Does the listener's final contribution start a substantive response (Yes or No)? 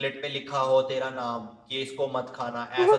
No